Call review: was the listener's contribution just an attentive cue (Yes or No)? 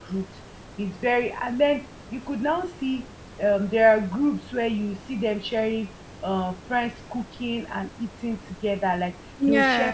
Yes